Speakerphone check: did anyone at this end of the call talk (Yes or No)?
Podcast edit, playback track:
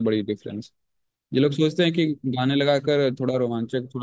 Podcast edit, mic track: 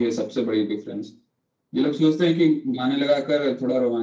No